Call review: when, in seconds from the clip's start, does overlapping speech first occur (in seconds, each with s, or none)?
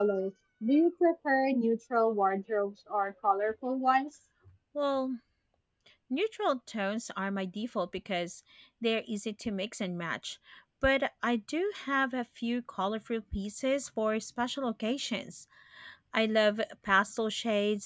none